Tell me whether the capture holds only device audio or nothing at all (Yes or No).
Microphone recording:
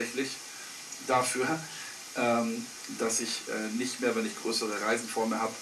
Yes